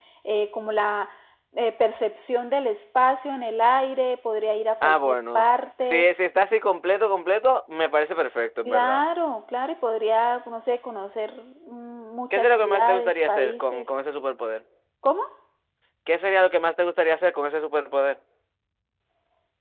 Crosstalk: present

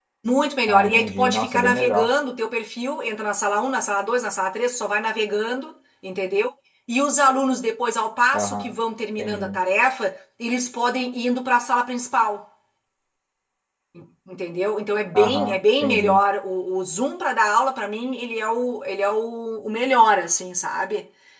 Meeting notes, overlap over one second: present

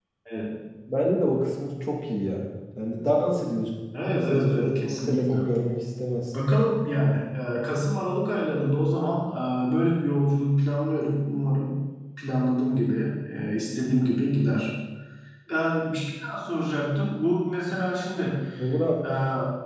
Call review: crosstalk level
present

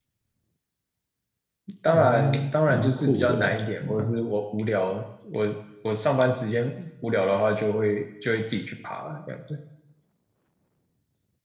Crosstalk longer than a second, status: present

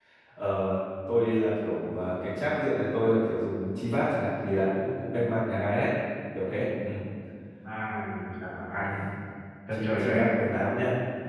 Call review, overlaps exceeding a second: none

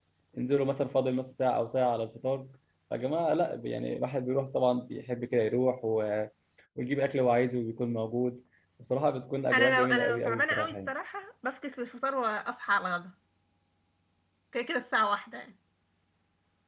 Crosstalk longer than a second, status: present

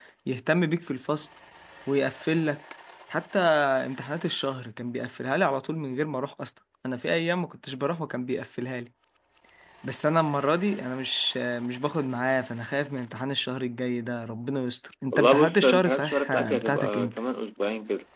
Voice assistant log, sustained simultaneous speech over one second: present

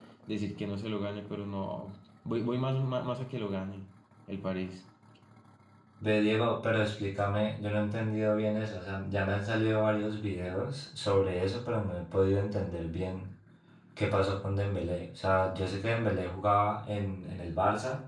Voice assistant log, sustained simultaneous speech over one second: none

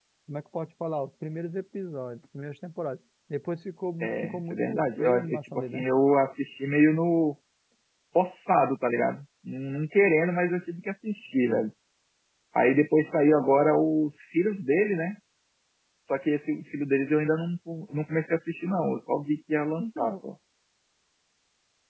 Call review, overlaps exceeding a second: present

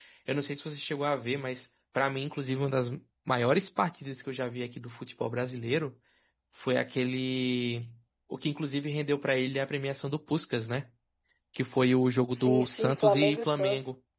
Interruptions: present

